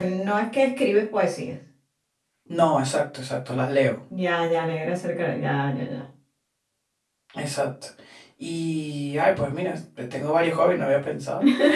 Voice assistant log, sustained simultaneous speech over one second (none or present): none